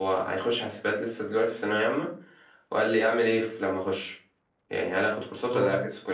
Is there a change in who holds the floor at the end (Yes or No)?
No